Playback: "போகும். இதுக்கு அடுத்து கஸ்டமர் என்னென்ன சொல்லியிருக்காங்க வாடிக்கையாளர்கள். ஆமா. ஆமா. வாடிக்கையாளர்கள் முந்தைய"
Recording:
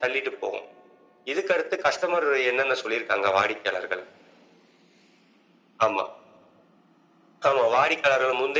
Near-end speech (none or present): none